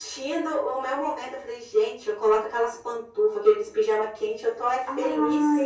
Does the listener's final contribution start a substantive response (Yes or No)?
Yes